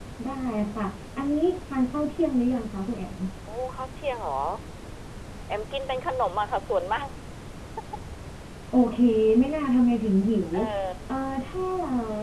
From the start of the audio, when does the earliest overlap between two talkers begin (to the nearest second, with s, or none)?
none